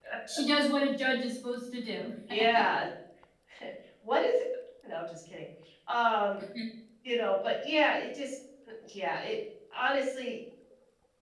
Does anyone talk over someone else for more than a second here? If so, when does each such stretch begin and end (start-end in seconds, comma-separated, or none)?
none